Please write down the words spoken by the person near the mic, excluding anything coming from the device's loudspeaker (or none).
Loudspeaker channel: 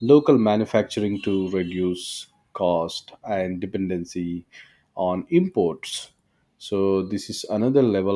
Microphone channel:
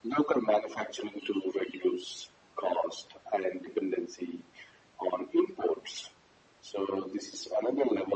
none